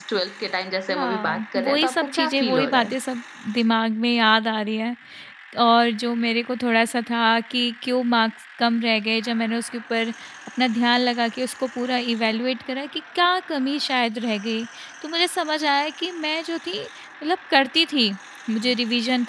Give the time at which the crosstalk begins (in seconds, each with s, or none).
0.9 s